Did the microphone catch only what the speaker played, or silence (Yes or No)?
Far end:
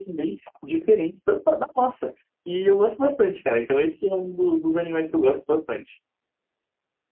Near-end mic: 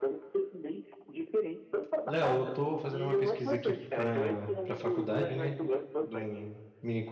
No